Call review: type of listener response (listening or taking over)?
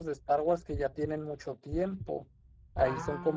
listening